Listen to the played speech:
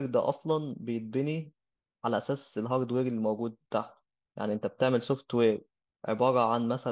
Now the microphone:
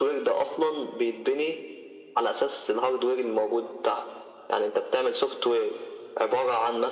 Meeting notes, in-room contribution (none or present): none